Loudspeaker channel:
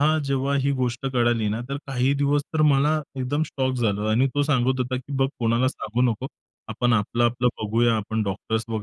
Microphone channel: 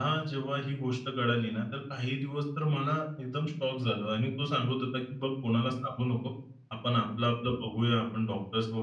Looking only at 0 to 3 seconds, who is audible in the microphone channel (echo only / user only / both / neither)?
echo only